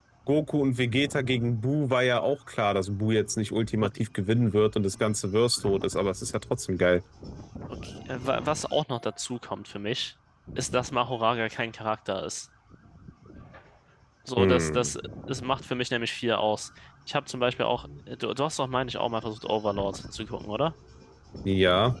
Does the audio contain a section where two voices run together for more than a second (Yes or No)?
No